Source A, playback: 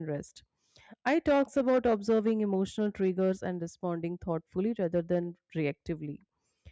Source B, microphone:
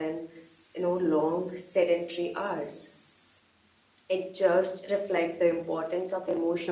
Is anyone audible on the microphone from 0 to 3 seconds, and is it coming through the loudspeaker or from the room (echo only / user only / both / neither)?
user only